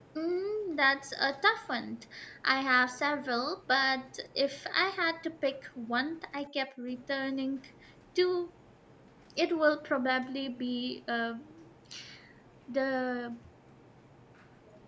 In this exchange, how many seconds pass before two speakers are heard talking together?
none

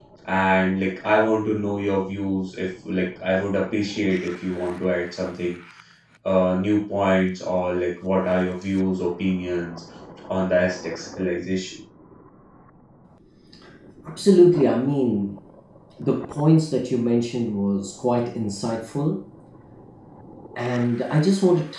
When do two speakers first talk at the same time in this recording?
none

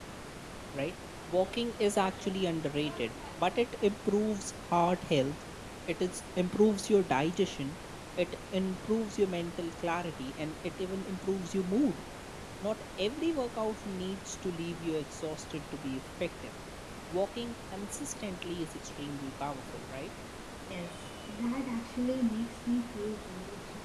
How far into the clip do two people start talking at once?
none

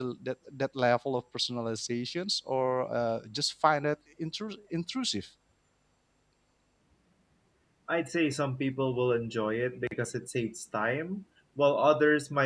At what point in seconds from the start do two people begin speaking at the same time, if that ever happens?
none

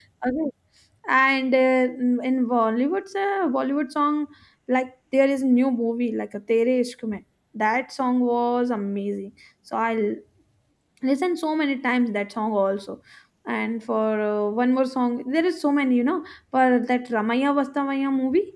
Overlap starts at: none

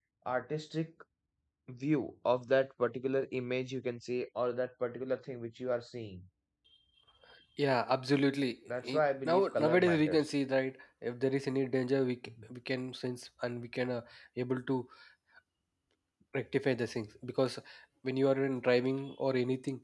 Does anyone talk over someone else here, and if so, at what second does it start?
8.8 s

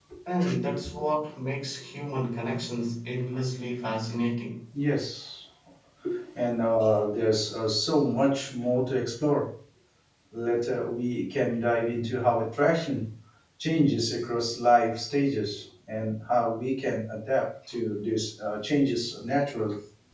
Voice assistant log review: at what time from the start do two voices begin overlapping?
none

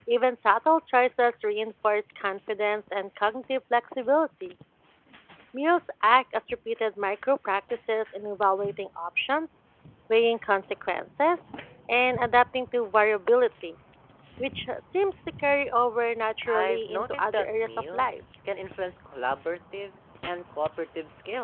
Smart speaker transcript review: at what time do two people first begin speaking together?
16.5 s

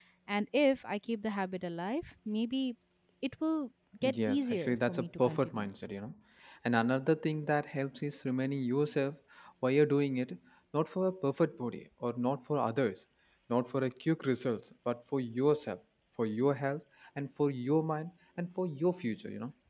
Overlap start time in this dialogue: 4.0 s

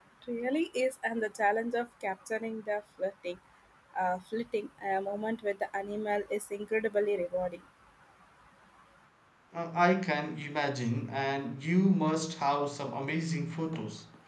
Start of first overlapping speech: none

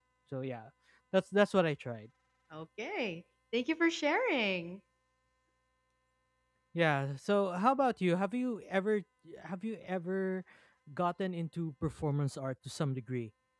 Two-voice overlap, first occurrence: none

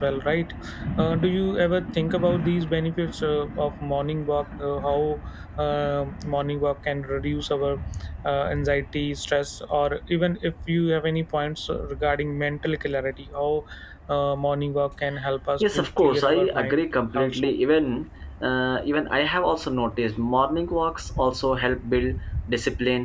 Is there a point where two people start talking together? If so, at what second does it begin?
15.6 s

